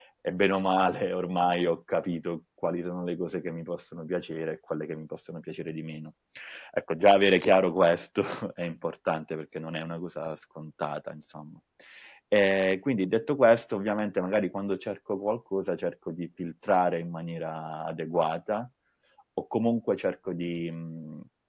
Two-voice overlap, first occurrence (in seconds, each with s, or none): none